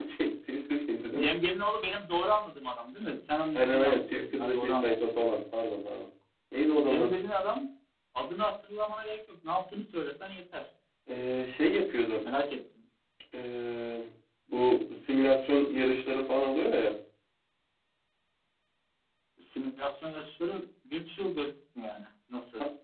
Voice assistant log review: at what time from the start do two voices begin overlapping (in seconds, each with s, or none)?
3.5 s